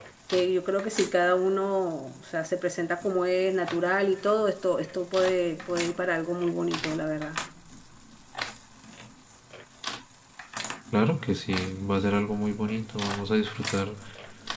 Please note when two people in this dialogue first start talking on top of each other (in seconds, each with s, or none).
none